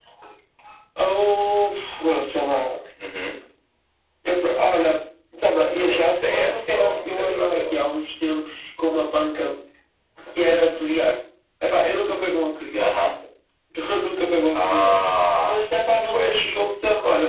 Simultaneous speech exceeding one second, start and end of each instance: 5.6-7.8

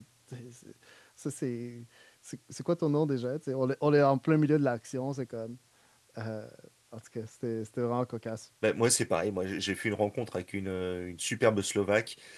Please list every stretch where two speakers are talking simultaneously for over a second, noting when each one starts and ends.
none

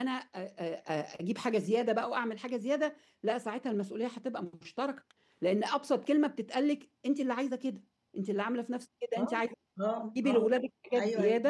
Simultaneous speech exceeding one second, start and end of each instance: none

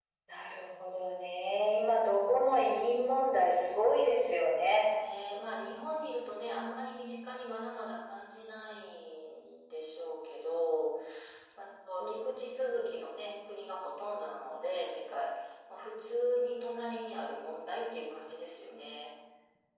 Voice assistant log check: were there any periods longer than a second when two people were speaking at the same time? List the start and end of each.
none

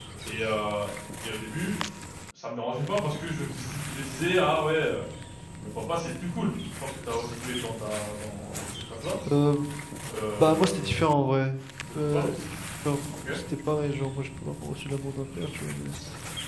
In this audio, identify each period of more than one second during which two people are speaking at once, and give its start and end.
none

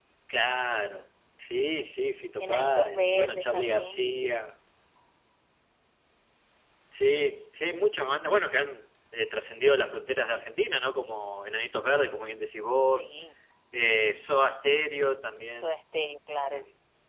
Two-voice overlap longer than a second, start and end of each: 2.4-4.1

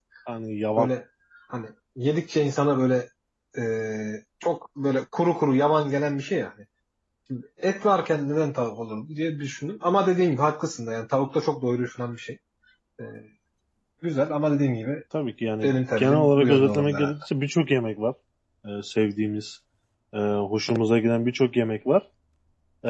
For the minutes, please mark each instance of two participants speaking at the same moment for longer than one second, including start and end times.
15.6-17.1

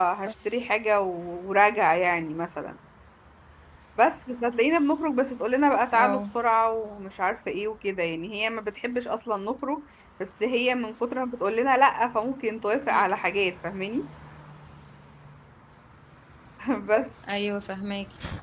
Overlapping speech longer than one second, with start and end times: none

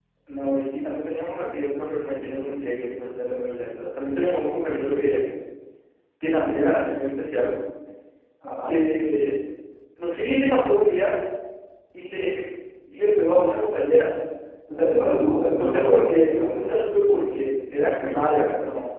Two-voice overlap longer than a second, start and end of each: 15.6-16.9

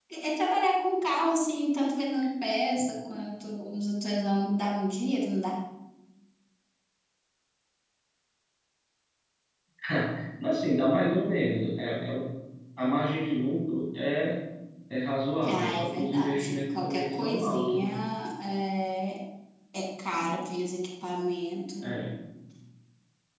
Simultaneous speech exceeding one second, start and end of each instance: 15.4-17.9

